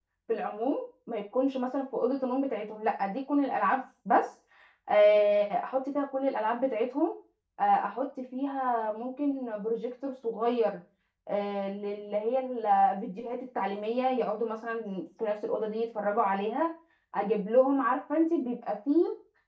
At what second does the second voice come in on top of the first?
none

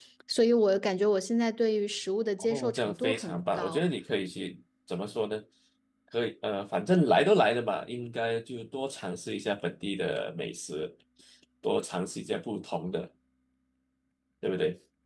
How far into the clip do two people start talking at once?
2.4 s

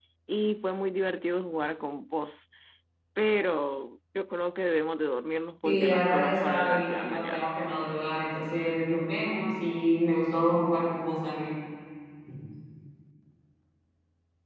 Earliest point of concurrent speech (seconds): 5.6 s

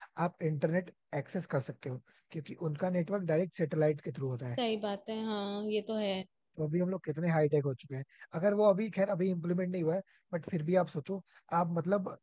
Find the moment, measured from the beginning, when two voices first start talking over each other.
none

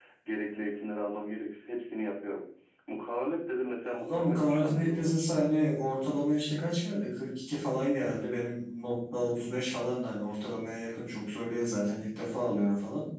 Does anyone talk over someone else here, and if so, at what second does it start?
3.8 s

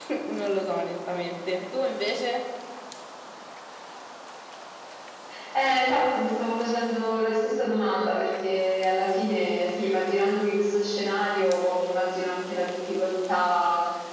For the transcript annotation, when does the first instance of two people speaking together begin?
none

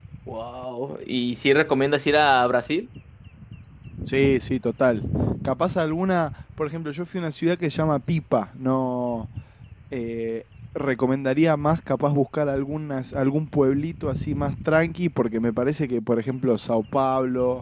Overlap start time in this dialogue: none

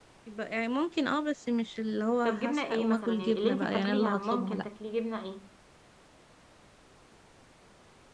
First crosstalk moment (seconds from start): 2.2 s

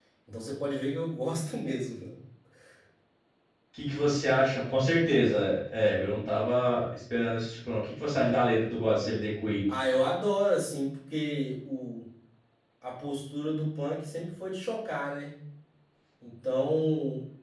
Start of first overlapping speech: none

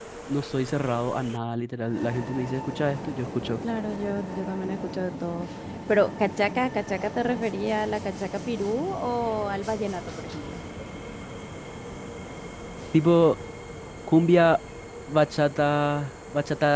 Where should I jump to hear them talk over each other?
none

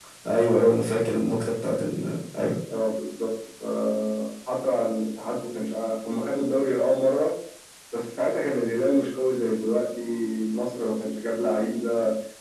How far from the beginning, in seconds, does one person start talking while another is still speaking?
none

